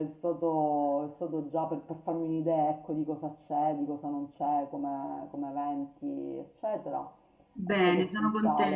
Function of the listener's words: taking over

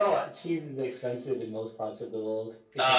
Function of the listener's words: taking over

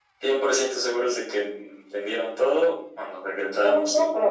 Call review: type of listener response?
taking over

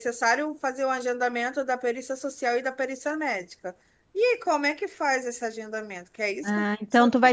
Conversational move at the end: taking over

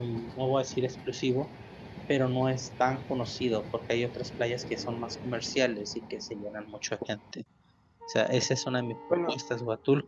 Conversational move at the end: listening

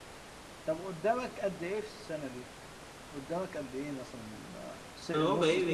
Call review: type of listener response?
taking over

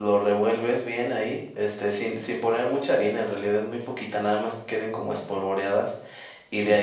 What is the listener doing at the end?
listening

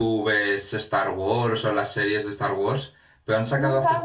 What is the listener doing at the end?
taking over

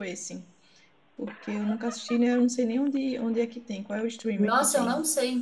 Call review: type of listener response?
taking over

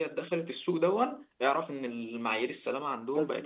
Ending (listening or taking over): taking over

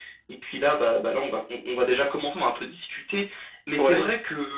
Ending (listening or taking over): listening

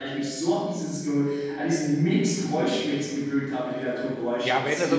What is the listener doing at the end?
taking over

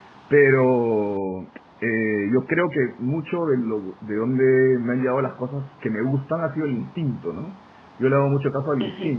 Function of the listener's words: listening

